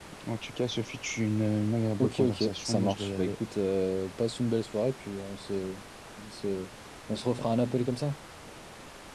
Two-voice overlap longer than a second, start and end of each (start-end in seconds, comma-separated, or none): 2.0-3.3